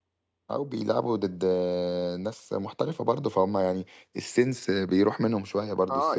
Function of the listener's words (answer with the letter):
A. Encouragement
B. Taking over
B